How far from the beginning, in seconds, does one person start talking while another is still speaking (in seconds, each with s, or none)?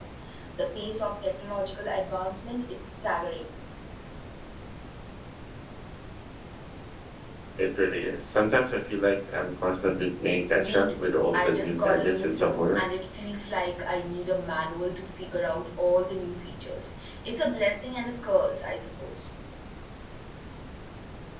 10.5 s